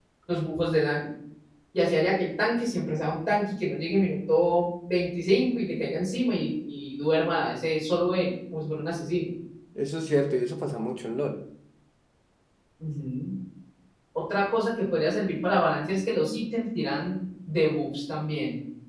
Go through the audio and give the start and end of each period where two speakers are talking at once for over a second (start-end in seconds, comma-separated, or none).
none